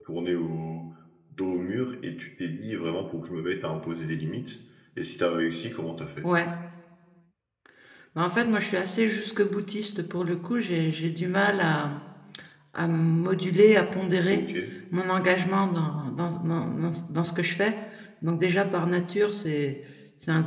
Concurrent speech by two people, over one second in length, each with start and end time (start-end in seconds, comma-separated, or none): none